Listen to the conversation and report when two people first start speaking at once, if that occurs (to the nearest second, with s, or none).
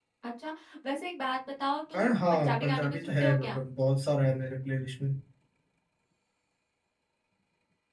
2 s